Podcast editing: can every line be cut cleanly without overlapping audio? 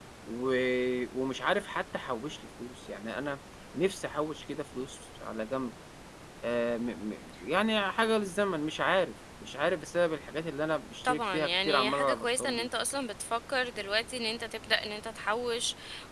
No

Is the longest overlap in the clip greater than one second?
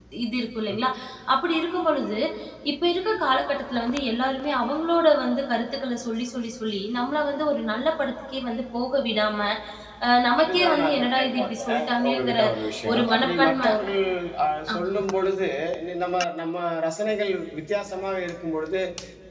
Yes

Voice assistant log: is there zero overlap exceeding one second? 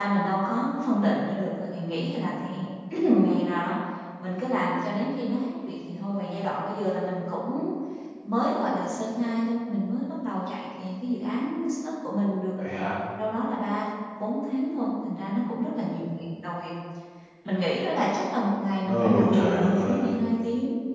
No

